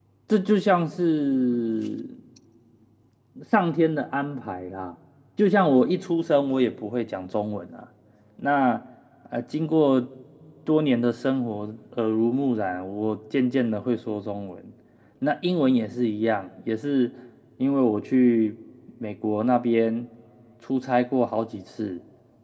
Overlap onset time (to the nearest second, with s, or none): none